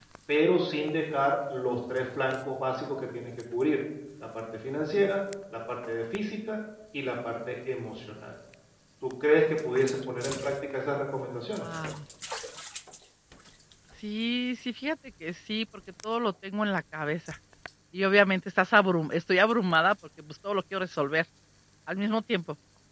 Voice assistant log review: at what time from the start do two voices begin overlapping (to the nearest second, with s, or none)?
none